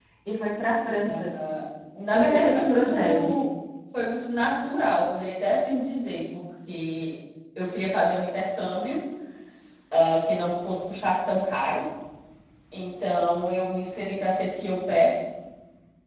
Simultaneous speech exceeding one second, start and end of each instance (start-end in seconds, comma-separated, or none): 2.1-3.4